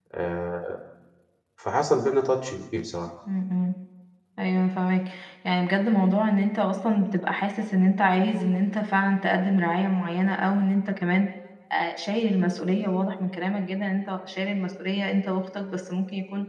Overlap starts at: none

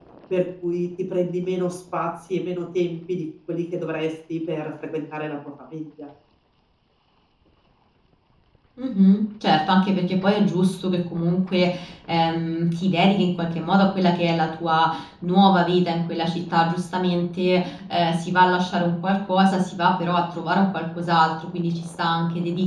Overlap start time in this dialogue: none

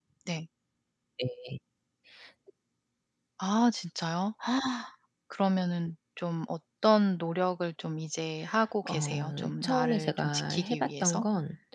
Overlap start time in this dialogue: 8.8 s

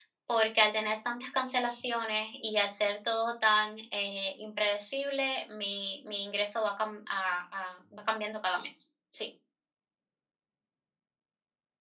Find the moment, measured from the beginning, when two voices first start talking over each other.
none

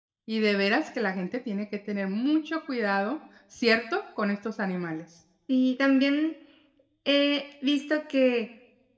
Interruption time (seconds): none

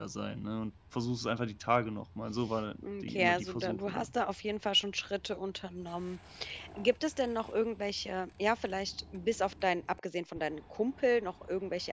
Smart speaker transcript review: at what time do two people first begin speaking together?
2.8 s

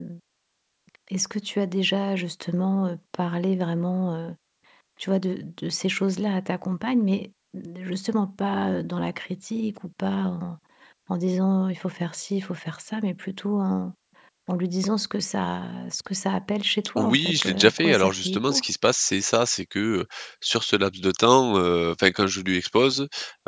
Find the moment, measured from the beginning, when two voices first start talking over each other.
17.0 s

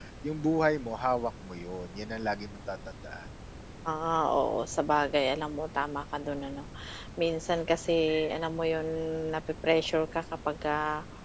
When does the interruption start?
none

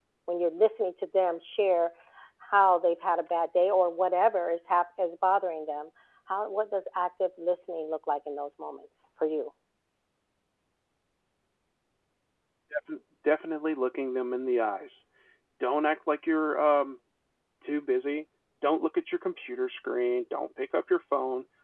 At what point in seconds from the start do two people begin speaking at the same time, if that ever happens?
none

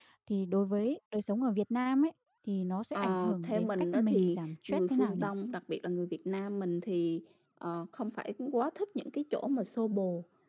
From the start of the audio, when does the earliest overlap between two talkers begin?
3.0 s

